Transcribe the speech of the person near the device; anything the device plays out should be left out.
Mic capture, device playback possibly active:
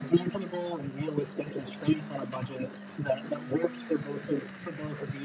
none

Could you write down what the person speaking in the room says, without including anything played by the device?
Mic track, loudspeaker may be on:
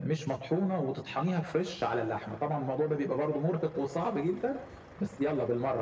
none

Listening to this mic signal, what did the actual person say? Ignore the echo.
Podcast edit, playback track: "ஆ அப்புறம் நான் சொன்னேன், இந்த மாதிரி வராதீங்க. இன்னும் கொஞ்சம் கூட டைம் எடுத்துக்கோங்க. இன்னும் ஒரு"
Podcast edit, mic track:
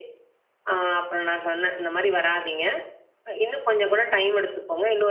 none

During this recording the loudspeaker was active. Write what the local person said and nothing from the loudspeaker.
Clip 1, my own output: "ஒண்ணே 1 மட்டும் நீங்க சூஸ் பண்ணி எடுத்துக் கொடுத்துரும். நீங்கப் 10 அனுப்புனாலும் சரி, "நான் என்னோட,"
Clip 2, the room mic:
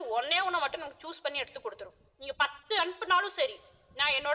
none

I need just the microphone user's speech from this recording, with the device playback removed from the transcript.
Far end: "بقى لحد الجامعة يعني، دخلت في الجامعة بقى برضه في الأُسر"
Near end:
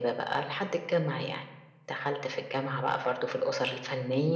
none

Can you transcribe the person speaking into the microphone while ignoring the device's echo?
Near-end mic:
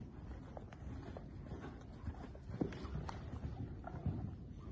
none

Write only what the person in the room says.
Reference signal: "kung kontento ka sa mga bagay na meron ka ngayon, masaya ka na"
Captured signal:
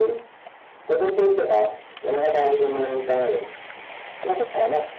none

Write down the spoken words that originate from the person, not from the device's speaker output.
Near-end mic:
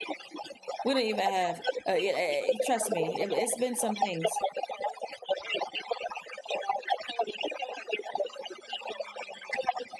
don't even have Uh, yeah, eh eh, e trust me. It wa It's been some things.

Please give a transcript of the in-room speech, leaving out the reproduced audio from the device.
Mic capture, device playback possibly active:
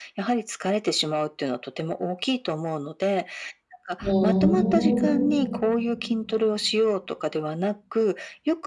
ふうん。

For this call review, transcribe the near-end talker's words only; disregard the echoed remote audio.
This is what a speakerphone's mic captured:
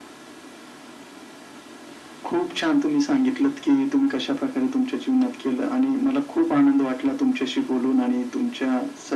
none

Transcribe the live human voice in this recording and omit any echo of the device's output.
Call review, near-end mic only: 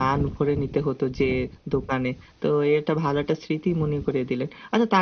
none

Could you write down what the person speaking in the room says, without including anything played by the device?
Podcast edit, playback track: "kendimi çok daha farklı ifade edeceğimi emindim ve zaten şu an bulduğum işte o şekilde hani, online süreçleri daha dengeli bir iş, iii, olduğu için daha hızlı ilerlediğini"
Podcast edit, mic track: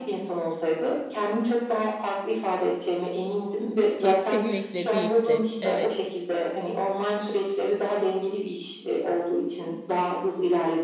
Kesinlikle, değilsin. Evet.

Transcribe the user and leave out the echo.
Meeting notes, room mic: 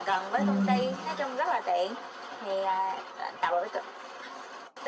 Ừm.

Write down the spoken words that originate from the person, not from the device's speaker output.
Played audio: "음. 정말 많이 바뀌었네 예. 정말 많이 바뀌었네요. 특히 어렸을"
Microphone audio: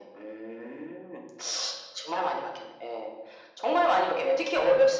none

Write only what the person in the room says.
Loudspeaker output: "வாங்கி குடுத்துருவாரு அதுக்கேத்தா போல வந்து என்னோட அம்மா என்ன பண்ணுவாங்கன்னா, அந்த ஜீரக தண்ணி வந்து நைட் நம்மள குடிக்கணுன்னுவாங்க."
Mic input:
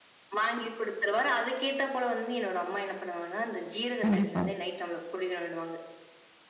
கண்டிப்பா.

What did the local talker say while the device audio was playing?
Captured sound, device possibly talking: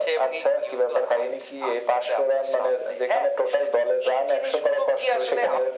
none

